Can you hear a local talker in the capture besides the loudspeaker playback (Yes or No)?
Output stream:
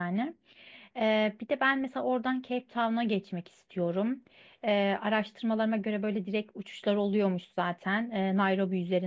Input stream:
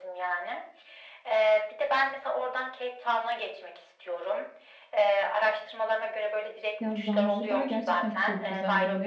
Yes